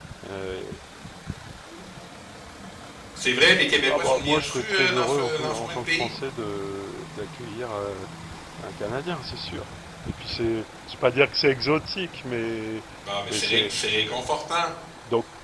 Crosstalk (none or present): present